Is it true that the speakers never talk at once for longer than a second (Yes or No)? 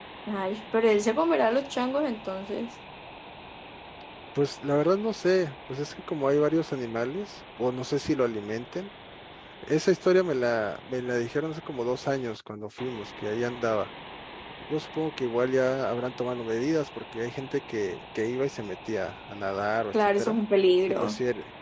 Yes